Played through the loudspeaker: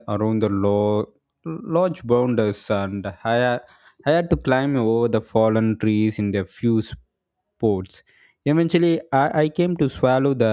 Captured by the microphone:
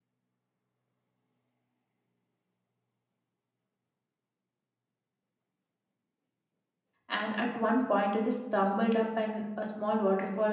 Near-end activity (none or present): present